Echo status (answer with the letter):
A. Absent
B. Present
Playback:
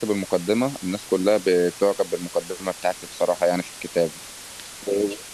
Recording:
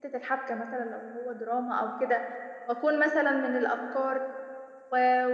A